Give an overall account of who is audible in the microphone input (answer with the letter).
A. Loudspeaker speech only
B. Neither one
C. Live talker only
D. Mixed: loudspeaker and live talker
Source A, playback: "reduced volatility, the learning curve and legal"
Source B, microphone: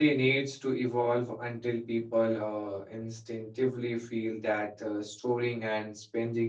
C